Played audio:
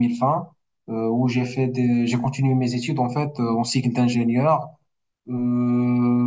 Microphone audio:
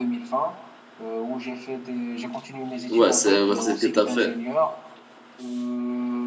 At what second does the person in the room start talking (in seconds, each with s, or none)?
2.9 s